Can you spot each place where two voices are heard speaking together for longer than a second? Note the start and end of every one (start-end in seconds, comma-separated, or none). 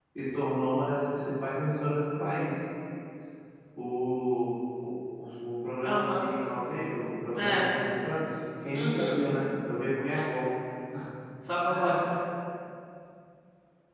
none